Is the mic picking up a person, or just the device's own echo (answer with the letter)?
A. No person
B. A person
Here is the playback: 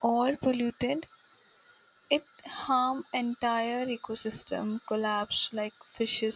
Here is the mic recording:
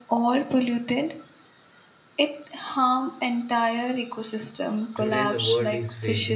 B